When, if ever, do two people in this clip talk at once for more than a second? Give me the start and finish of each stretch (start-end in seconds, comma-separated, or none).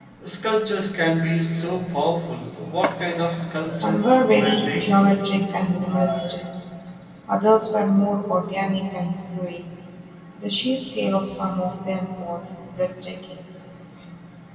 3.7-5.0